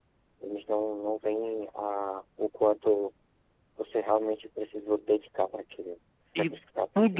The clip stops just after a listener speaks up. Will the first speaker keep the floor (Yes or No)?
No